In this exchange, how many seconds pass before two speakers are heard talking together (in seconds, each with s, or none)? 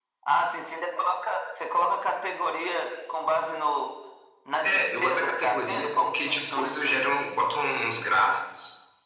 4.6 s